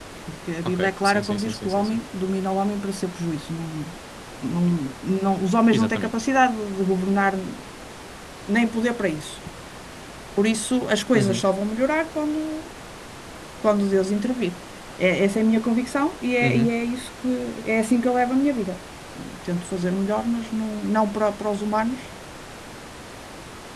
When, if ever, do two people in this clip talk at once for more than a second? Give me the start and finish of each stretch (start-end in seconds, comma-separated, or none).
0.7-2.0